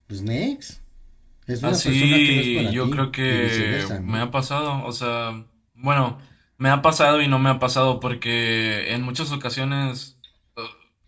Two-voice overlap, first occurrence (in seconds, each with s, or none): 1.6 s